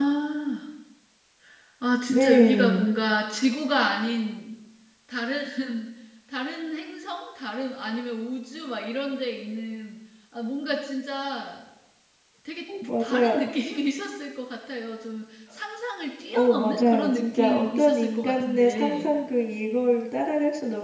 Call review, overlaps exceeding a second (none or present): present